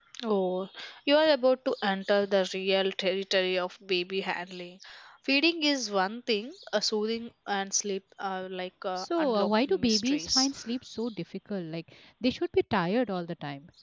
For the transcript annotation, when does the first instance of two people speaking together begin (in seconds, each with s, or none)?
9.0 s